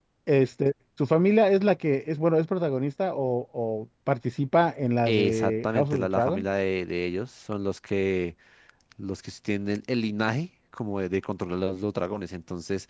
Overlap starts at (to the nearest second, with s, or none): 5 s